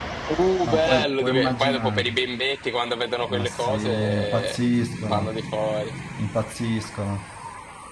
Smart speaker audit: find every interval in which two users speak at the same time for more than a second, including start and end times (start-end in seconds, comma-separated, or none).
0.6-2.1, 3.3-4.6